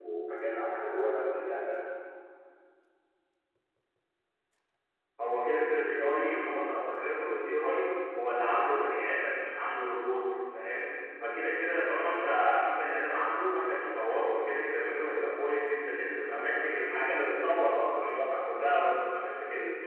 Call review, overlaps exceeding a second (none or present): none